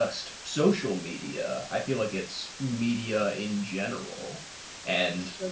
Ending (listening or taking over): listening